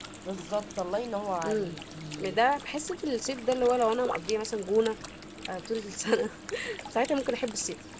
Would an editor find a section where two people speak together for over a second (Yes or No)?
No